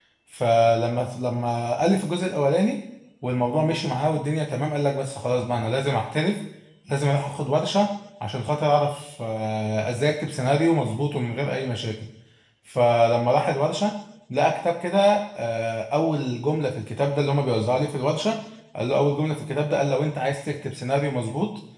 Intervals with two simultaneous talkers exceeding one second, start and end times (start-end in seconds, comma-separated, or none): none